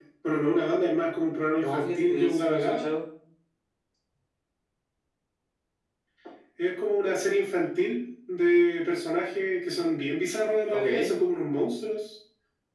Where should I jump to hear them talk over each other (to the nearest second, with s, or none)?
2 s